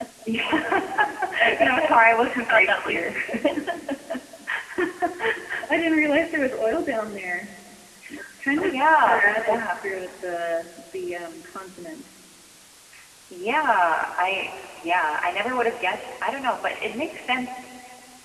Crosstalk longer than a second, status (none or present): present